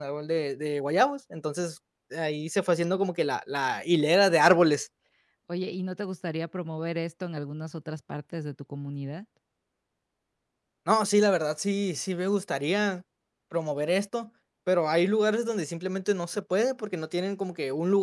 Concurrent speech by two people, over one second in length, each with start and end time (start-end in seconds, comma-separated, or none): none